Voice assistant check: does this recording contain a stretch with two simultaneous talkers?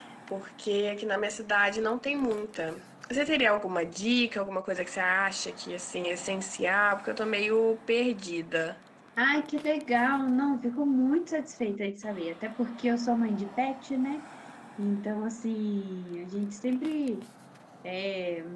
No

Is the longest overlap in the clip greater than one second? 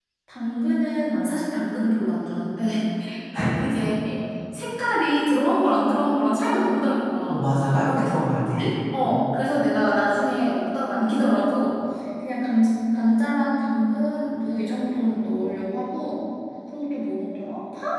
No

